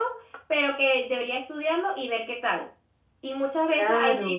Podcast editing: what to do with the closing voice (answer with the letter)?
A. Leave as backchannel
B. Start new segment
A